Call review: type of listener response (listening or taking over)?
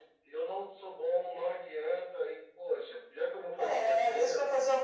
taking over